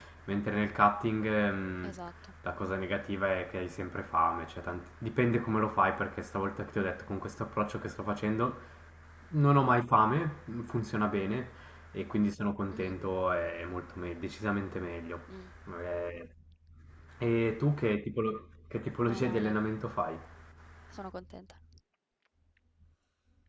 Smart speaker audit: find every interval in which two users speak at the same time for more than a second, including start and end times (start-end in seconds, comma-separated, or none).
none